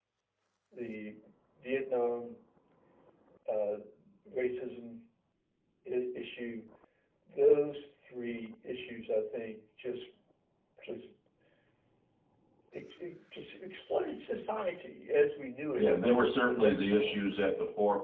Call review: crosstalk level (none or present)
present